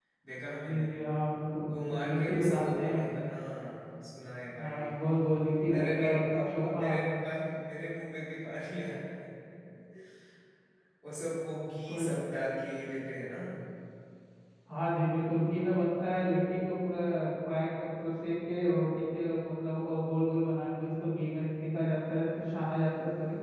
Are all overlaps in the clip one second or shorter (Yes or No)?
No